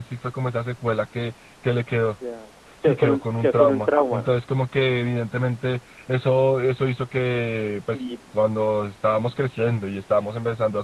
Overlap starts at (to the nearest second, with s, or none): 3 s